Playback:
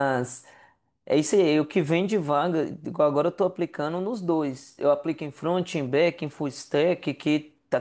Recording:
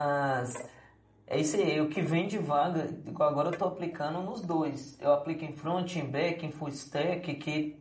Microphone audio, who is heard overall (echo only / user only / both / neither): echo only